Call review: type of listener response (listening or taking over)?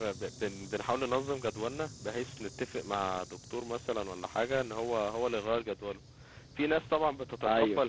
listening